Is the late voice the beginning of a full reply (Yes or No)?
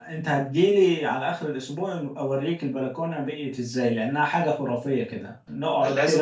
No